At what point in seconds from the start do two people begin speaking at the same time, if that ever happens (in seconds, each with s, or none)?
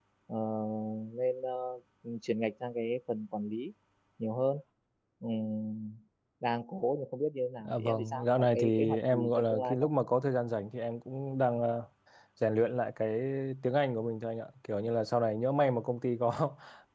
7.6 s